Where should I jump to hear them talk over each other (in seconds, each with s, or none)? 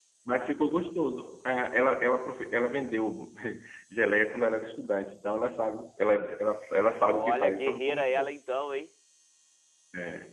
7.1 s